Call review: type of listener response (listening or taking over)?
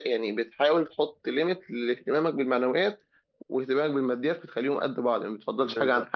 taking over